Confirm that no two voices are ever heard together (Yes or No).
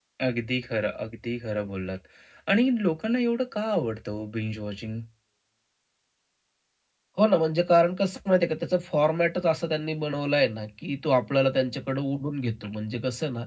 Yes